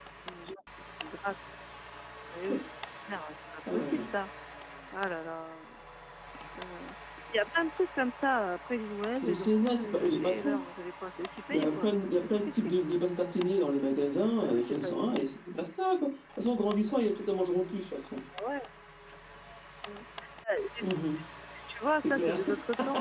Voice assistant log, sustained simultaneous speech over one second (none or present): present